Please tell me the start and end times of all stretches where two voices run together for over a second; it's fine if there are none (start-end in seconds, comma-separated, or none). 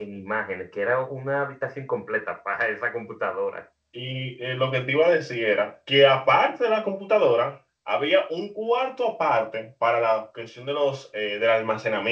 none